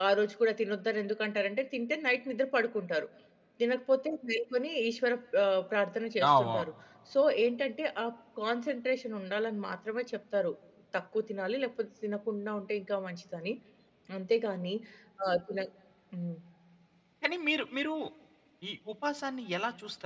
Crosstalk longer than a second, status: none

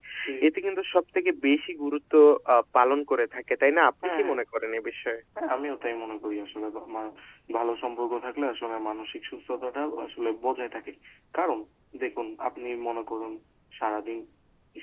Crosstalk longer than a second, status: none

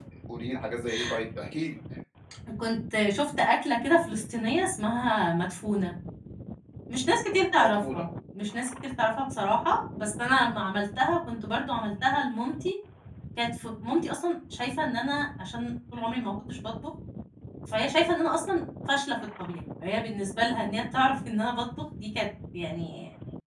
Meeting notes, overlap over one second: none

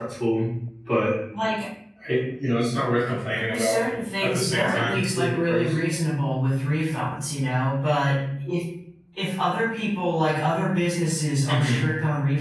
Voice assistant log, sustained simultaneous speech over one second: present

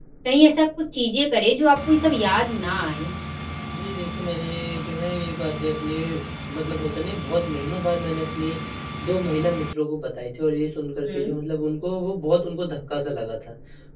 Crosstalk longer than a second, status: none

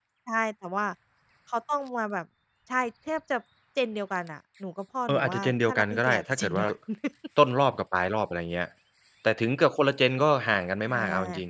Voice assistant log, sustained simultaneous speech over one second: present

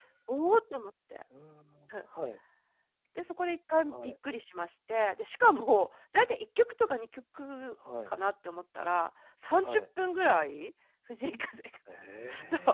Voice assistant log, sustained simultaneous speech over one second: none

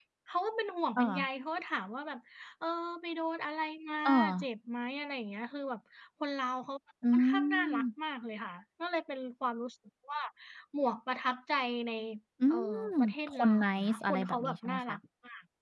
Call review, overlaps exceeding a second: present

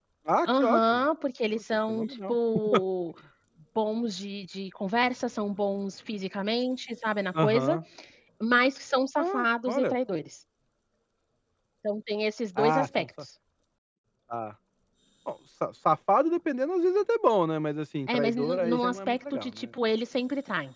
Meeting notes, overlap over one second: present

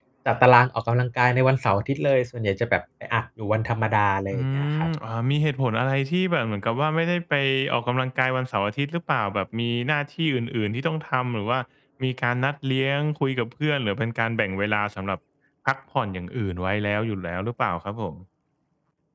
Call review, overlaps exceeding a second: none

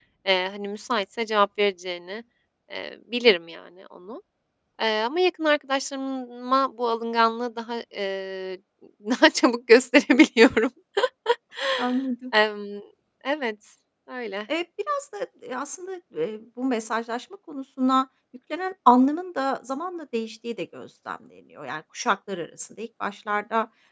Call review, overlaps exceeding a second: none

